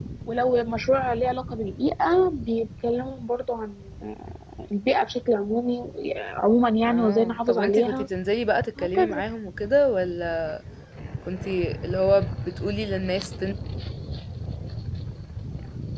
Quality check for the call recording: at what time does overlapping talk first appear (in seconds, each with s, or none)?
6.8 s